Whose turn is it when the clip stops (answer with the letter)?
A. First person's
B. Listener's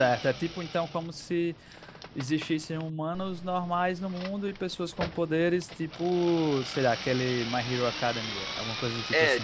B